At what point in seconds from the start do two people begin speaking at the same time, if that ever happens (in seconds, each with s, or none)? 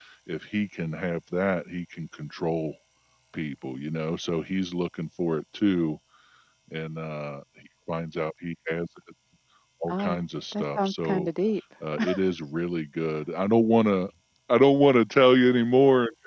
9.9 s